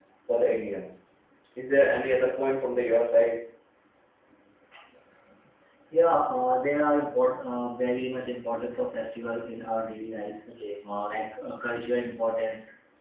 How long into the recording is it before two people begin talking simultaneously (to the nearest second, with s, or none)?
none